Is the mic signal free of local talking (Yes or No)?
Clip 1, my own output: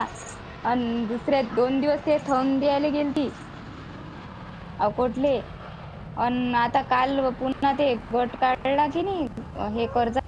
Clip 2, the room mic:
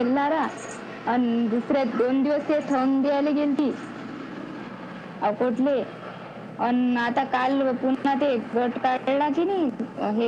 Yes